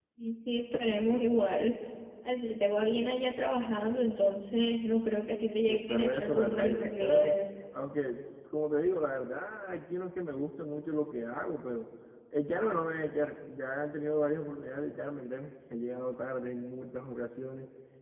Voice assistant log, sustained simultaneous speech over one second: present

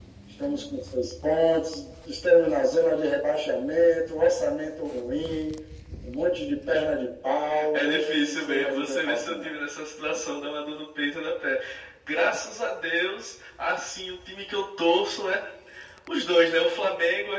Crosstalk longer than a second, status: present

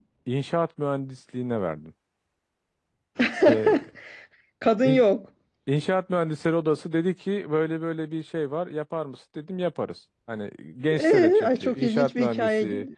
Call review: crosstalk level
present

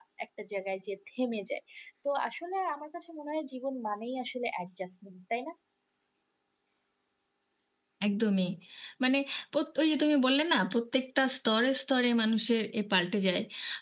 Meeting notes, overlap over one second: none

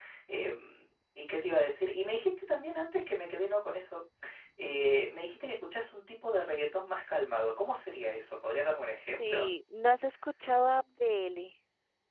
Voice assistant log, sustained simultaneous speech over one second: none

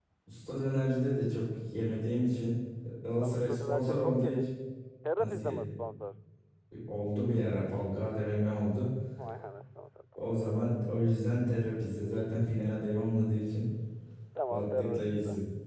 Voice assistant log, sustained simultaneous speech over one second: present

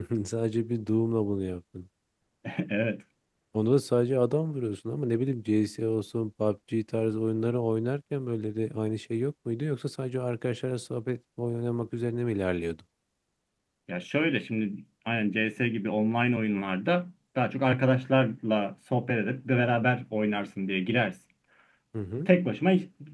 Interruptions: none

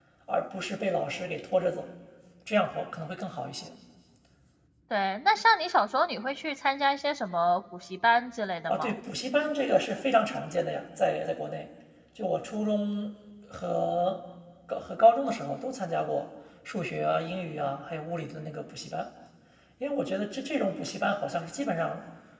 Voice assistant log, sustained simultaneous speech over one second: none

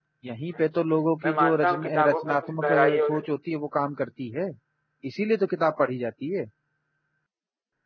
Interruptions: present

